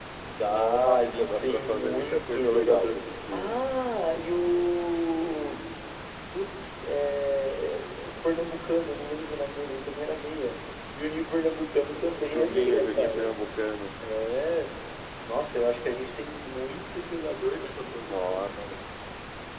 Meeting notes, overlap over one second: present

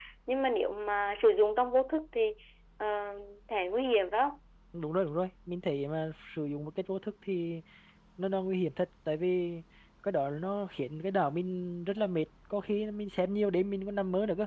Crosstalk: none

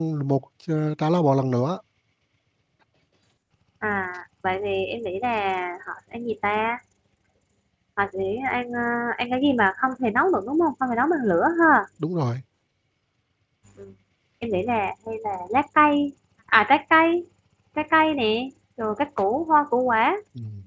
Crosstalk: none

